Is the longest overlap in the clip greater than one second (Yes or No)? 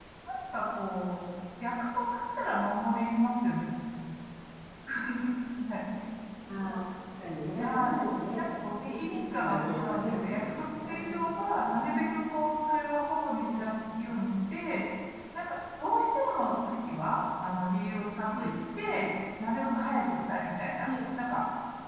Yes